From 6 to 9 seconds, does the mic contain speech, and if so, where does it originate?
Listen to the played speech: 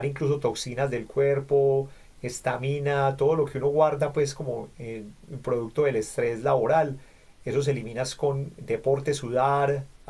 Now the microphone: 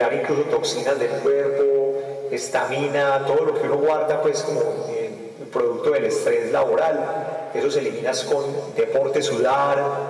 echo only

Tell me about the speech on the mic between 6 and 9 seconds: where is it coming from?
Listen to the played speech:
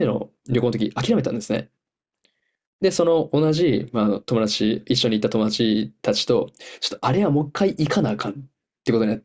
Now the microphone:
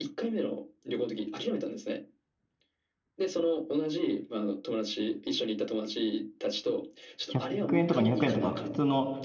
both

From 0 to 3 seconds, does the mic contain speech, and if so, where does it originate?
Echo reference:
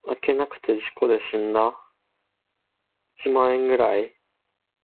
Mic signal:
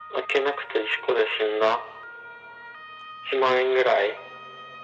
echo only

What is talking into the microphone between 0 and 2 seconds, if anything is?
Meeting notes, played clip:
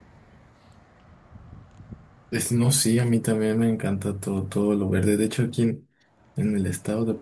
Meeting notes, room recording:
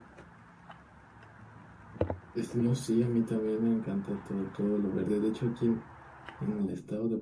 neither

